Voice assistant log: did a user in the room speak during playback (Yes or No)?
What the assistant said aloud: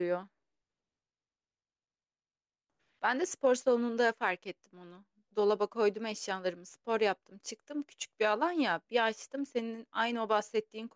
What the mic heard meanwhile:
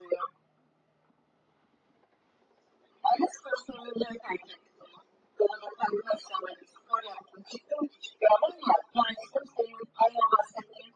No